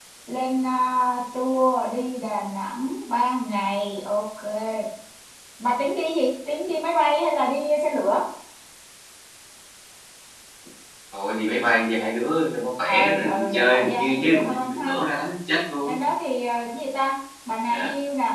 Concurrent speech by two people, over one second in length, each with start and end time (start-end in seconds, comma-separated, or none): 12.9-14.9